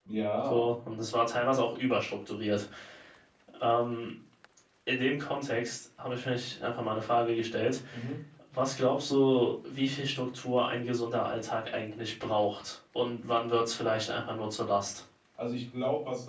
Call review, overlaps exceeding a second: none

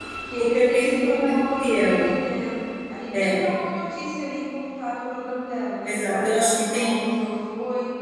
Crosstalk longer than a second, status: present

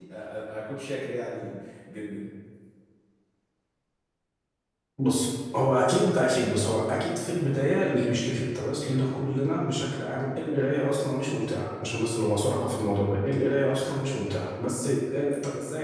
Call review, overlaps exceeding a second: none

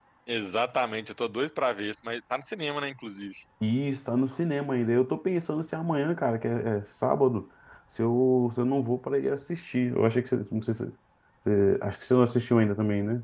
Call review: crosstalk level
none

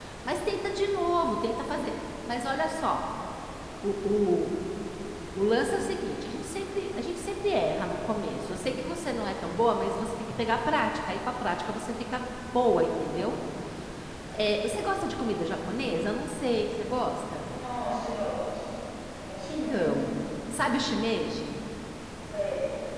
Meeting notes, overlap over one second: none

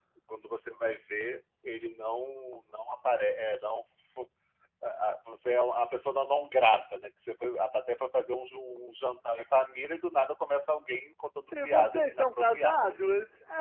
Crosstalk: present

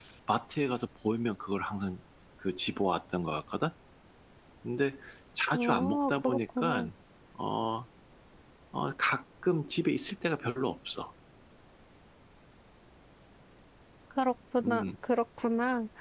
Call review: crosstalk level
present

